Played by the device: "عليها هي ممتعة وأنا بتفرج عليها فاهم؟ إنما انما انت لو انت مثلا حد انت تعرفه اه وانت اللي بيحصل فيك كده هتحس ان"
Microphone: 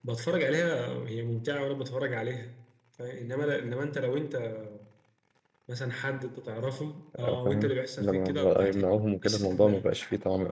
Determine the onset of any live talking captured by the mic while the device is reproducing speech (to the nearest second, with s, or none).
7 s